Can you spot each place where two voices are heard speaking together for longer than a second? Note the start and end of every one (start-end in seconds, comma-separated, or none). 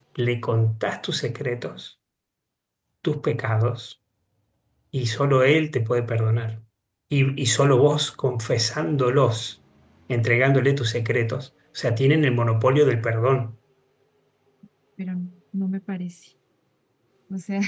none